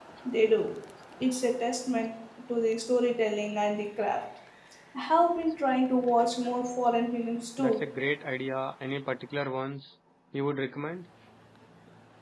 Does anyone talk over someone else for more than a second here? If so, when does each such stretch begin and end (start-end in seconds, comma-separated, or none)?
none